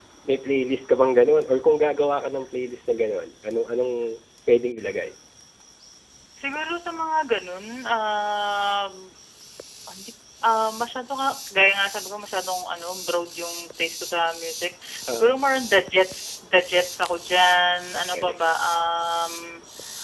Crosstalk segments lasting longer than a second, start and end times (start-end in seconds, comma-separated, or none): none